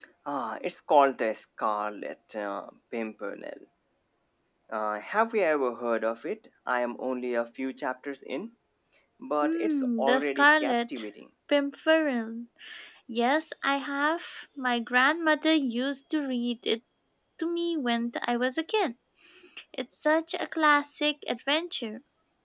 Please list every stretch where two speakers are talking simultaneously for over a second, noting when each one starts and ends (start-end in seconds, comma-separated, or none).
9.4-11.1